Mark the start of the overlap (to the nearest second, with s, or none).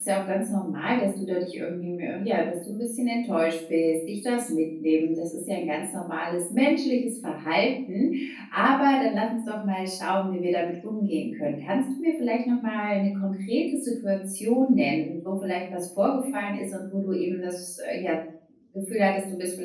none